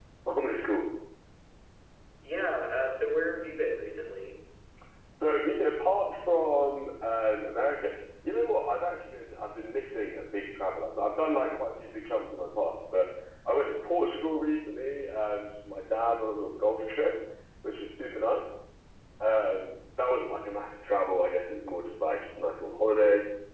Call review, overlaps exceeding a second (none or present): none